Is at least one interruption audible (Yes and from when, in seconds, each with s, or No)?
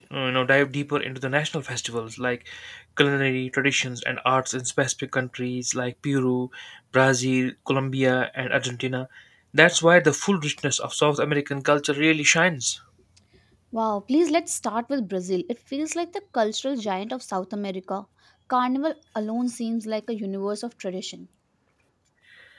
No